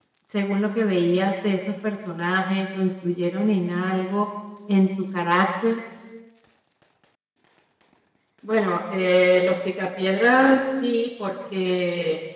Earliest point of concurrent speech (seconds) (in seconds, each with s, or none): none